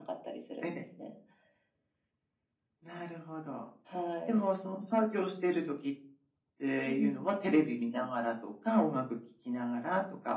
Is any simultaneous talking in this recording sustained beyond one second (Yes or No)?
No